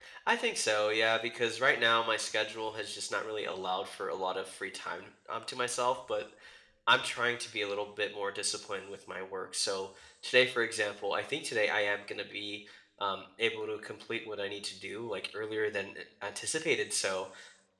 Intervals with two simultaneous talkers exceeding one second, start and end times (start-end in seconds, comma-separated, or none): none